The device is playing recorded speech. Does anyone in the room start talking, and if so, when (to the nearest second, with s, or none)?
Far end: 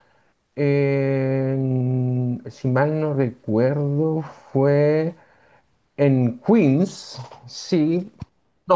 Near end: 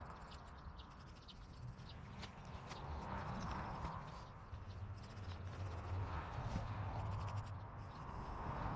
none